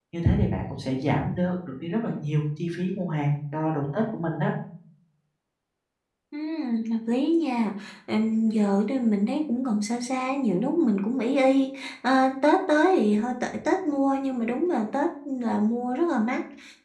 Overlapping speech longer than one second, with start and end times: none

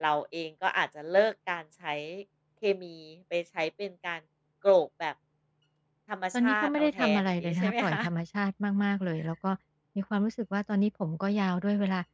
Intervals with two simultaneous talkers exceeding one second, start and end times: 6.3-8.0

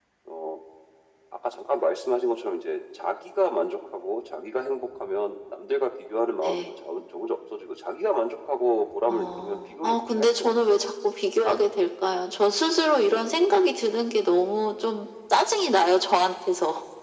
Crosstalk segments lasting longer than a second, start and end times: 9.1-10.8

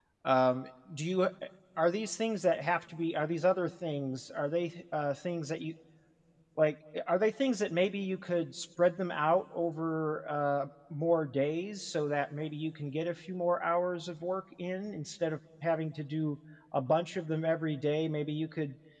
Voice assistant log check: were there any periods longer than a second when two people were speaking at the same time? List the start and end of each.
none

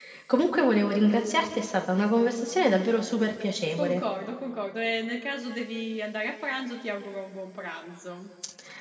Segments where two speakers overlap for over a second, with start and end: none

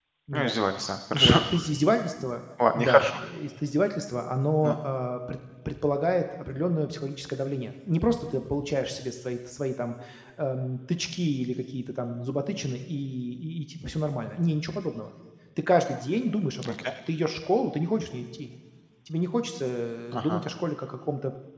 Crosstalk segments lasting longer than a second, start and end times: none

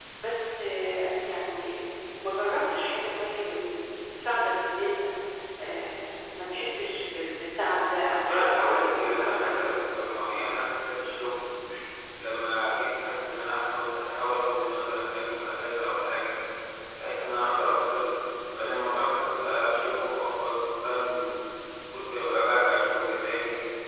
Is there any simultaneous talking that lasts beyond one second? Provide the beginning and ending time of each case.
8.2-9.6

